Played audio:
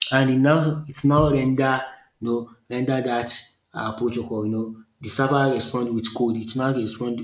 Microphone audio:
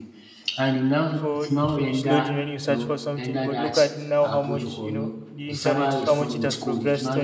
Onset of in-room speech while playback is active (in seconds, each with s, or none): 1.1 s